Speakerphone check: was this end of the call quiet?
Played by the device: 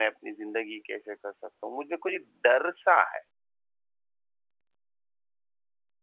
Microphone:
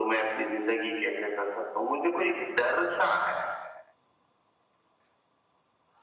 Yes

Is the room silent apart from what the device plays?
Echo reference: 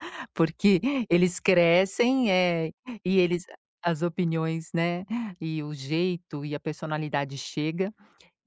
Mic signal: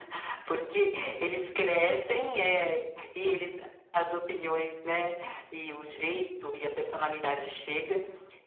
Yes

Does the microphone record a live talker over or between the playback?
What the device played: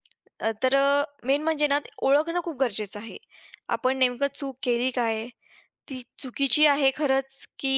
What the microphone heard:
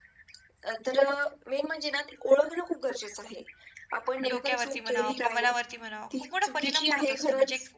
Yes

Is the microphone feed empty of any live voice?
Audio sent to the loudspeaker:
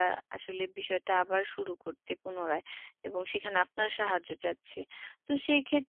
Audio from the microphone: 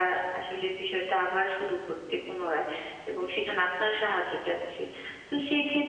Yes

